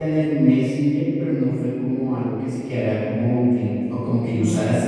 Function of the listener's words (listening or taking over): listening